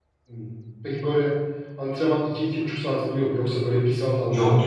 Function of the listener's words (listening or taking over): taking over